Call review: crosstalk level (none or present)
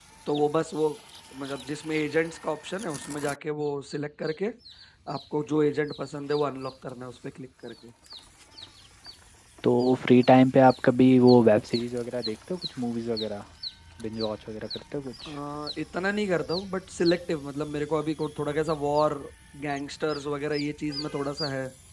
none